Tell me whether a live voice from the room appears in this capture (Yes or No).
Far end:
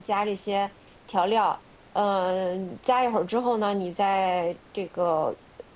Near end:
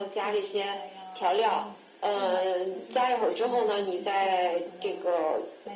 Yes